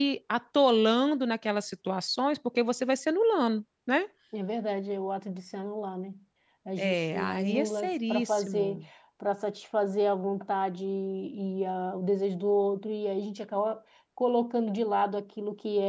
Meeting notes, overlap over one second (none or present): present